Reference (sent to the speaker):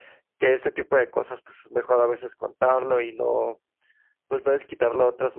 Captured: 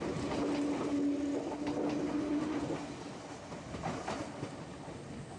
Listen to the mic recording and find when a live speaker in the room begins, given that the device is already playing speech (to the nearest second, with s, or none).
none